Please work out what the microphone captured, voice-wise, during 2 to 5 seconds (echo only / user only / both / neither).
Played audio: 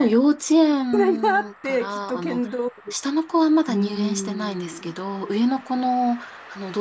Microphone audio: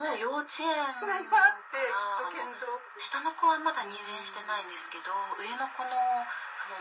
echo only